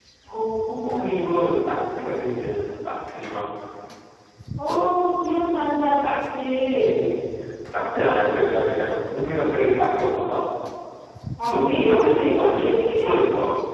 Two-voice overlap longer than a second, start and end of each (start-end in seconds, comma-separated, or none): 11.5-13.2